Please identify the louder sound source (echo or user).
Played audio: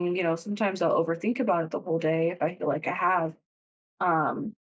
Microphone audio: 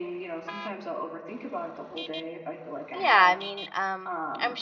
user